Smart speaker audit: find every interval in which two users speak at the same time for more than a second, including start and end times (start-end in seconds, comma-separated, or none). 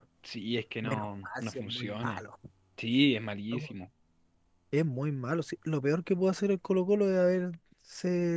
0.8-2.2